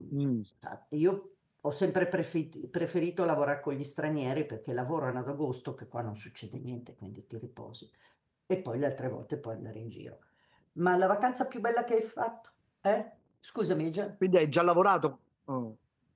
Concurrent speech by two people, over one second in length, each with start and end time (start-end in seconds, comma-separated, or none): none